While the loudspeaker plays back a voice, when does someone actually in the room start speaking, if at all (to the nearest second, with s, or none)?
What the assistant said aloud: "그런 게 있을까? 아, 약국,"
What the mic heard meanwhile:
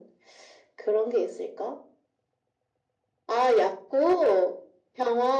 none